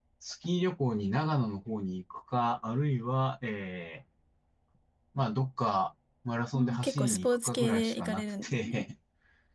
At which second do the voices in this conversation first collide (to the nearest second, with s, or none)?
7 s